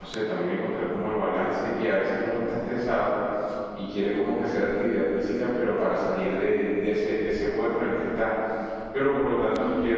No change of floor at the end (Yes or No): Yes